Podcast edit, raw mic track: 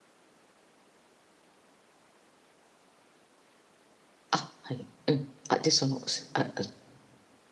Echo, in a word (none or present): none